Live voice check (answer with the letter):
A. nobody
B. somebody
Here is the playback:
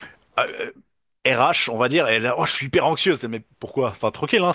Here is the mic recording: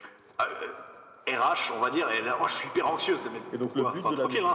B